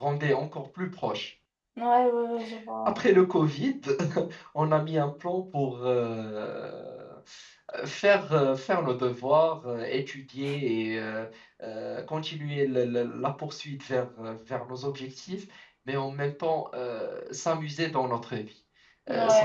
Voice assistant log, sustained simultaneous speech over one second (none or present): none